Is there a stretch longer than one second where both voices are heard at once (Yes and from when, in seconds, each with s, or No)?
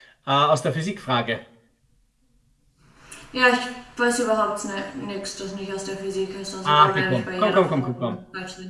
Yes, from 6.6 s